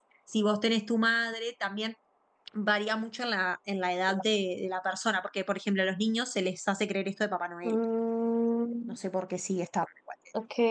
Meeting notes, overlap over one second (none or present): none